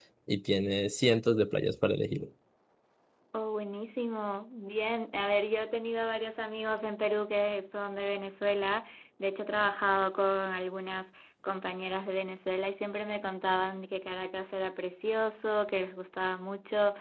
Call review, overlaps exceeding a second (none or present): none